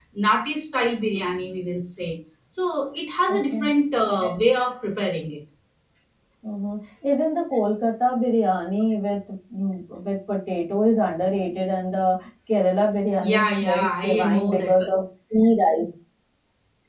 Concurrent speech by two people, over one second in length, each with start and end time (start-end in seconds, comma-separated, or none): 13.2-14.7